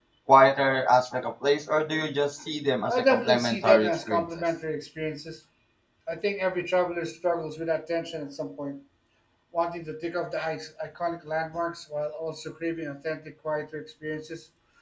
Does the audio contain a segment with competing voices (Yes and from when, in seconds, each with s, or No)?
Yes, from 2.9 s